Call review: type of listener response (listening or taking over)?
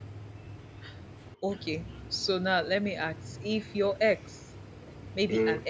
listening